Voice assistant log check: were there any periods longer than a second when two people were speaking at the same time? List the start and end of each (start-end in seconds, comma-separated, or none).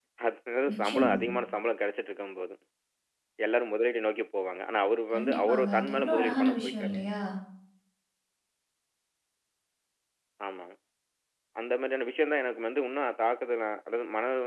5.1-7.0